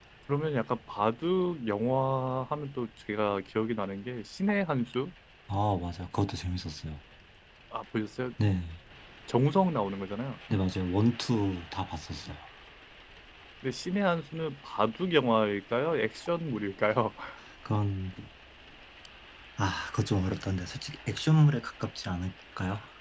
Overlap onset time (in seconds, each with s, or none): none